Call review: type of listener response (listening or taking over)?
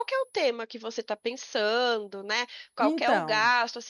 listening